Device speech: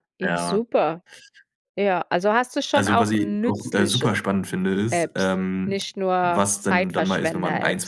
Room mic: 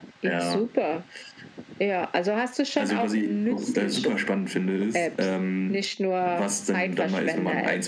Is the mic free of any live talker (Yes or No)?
Yes